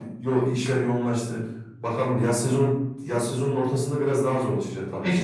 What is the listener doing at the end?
taking over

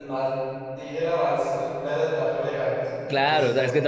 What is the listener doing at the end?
taking over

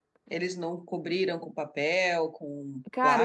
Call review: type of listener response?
taking over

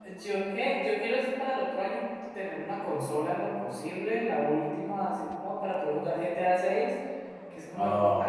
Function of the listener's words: listening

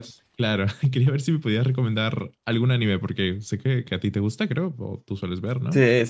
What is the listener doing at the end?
taking over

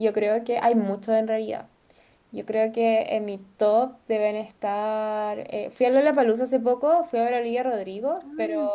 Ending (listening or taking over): listening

